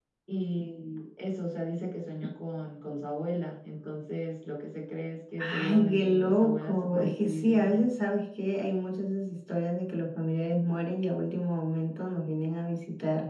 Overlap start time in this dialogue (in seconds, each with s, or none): 5.4 s